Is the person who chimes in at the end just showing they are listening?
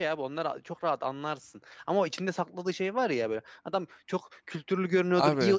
Yes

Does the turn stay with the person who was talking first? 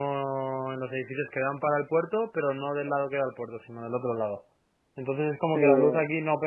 Yes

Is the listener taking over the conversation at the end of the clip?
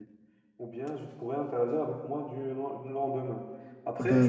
Yes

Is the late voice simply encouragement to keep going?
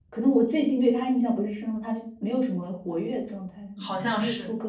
No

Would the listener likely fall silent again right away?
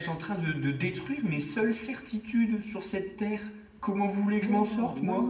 No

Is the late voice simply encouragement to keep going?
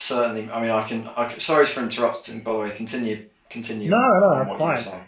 No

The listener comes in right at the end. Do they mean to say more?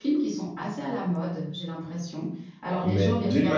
Yes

